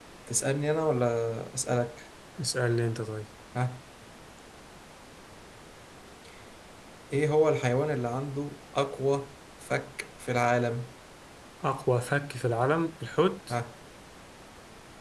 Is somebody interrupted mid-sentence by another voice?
No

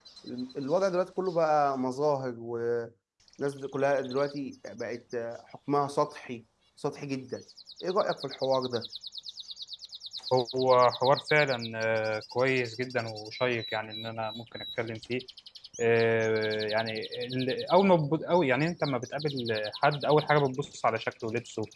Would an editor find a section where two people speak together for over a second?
No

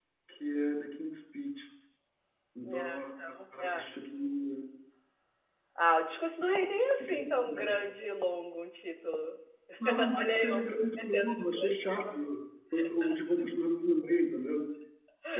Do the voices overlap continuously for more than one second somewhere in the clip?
Yes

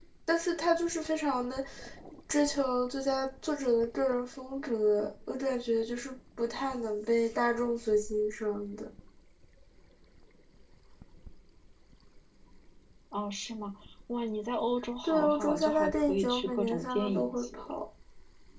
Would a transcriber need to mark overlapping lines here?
Yes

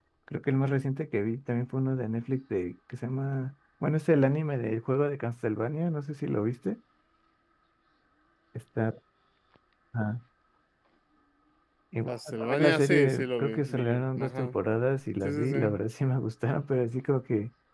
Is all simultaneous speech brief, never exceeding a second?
No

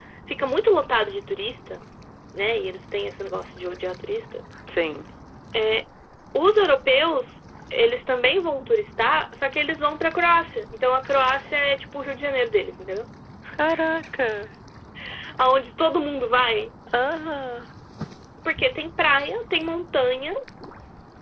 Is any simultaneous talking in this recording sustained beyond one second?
No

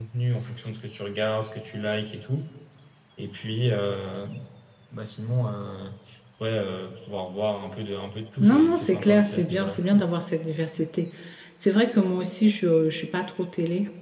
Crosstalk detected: Yes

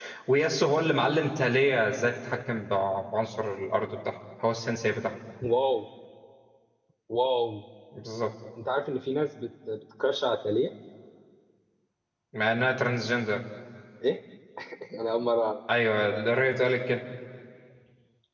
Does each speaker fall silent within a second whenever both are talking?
Yes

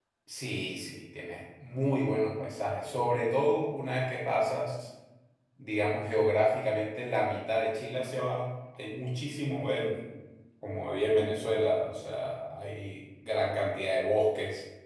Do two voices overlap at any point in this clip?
No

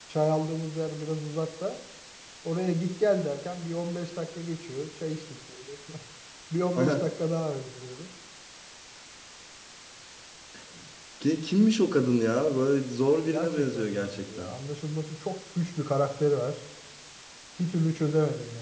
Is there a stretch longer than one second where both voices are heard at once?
Yes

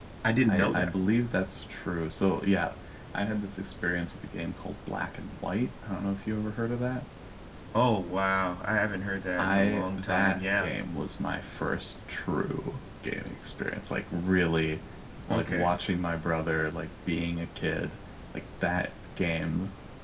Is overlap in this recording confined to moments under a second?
No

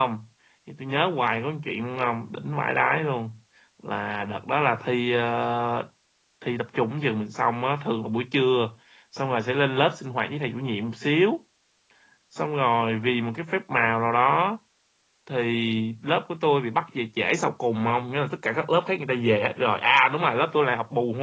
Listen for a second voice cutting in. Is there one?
No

